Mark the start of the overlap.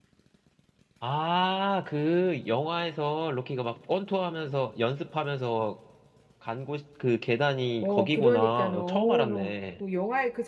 7.8 s

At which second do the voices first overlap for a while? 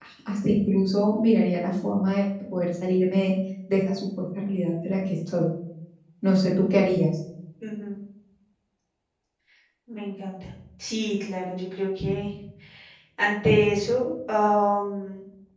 none

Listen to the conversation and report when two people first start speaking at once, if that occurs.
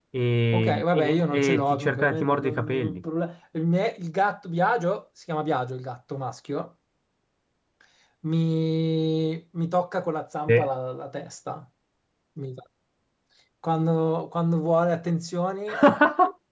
0.5 s

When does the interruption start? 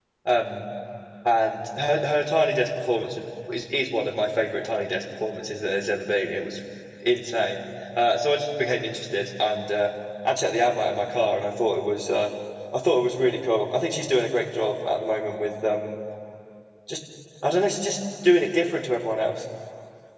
none

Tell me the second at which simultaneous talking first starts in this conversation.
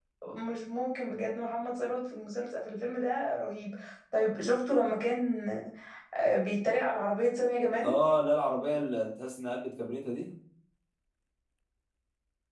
none

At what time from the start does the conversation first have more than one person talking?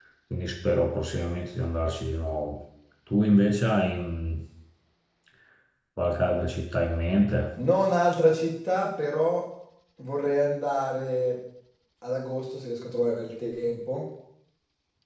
none

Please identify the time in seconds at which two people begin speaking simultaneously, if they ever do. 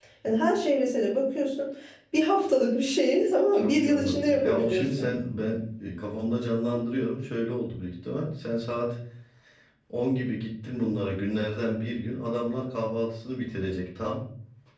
3.5 s

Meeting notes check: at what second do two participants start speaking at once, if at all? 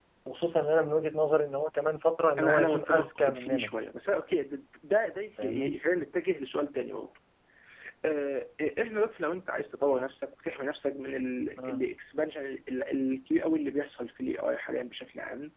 2.4 s

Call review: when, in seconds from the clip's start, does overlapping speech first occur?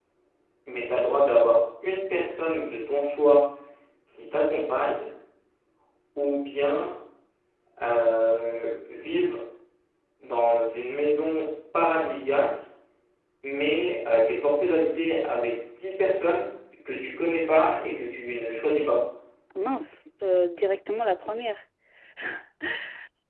none

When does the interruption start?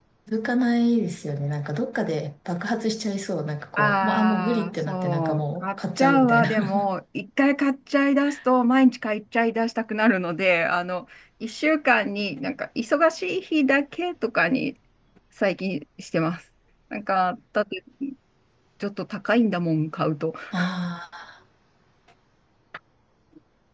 3.8 s

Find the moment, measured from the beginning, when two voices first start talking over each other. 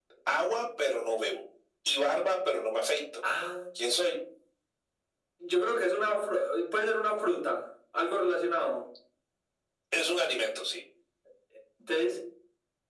none

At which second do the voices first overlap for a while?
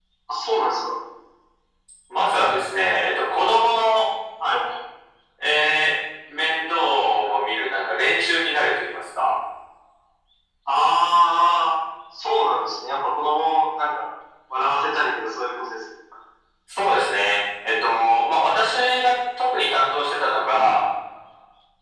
none

